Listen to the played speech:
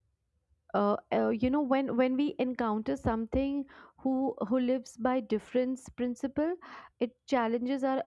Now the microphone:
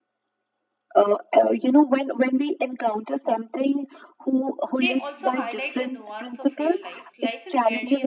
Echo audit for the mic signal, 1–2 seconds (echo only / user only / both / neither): echo only